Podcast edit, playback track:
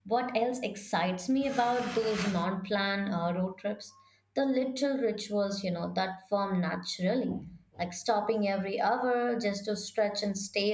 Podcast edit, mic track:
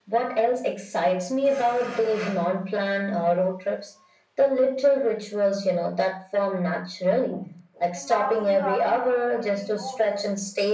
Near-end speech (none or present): present